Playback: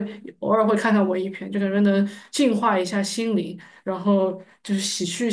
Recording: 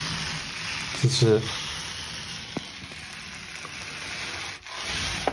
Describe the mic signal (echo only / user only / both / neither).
user only